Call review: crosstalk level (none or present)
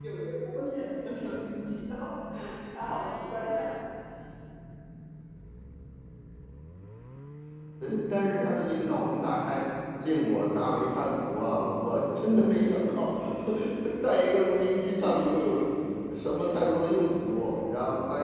none